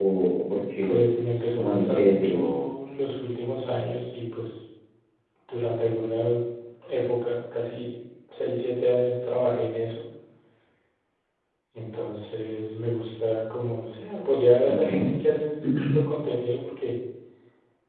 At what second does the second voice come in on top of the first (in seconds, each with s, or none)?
0.8 s